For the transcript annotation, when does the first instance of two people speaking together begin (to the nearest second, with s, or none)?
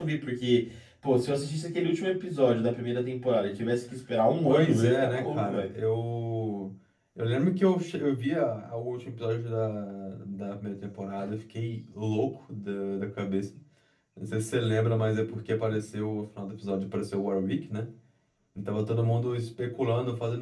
4 s